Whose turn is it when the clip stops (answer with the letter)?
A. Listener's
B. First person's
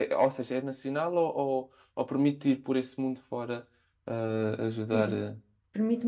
A